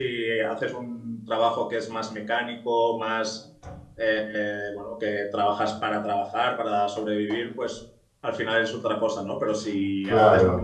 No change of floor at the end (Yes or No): Yes